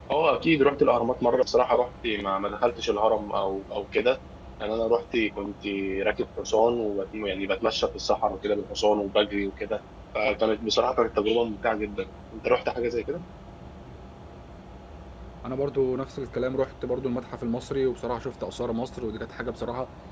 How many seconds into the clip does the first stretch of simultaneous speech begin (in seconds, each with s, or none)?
none